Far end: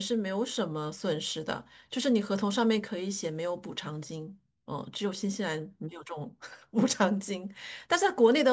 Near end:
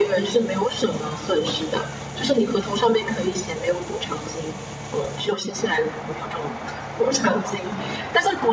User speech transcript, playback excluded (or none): none